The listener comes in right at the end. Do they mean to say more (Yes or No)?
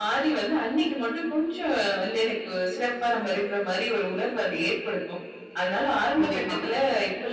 No